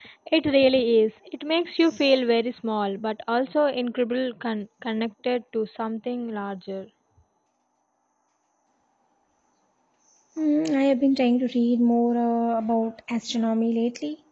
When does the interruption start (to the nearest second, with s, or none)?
none